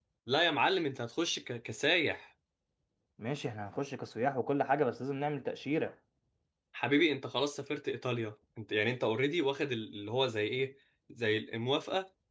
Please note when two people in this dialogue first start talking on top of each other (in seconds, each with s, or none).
none